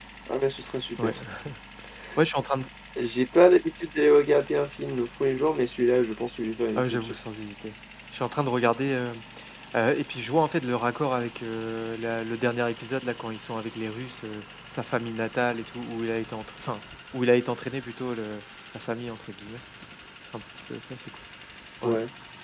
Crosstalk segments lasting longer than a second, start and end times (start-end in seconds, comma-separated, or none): none